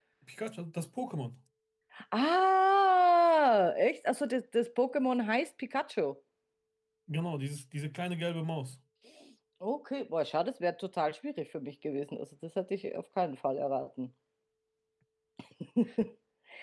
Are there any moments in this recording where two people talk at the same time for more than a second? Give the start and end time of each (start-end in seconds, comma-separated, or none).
none